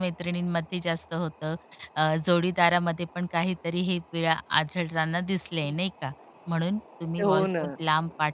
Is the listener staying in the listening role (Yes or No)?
Yes